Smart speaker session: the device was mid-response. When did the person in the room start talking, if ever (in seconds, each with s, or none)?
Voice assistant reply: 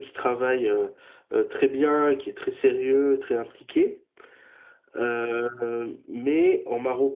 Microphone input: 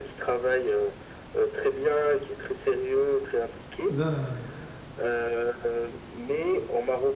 3.9 s